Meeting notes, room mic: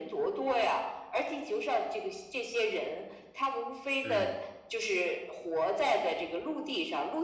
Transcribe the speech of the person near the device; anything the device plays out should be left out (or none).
嗯，